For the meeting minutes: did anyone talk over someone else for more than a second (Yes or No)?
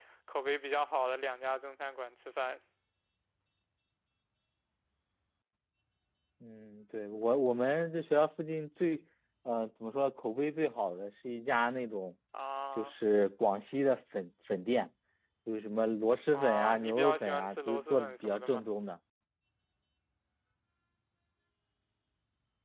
Yes